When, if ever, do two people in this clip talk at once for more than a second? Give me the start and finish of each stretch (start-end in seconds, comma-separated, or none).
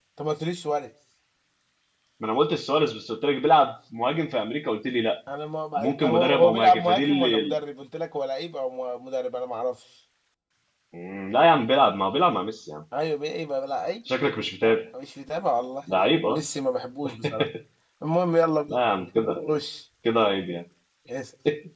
5.8-7.5